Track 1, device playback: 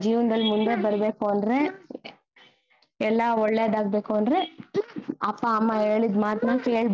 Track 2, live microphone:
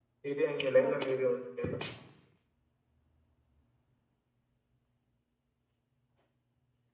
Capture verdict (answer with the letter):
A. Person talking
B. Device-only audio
A